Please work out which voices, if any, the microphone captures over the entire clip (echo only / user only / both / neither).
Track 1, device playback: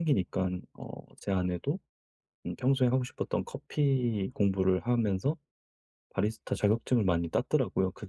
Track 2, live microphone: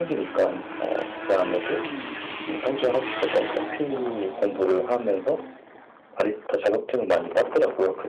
echo only